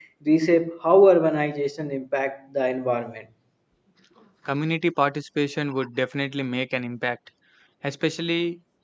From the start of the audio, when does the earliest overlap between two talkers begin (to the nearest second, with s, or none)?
none